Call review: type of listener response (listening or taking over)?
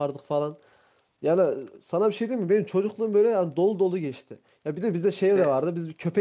listening